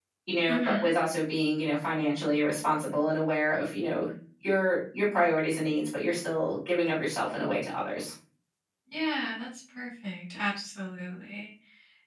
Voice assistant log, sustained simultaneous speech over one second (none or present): none